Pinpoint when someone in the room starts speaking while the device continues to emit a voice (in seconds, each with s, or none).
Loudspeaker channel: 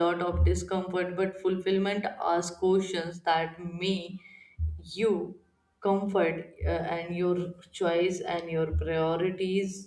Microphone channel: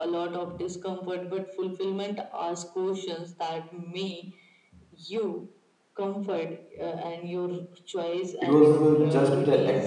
8.4 s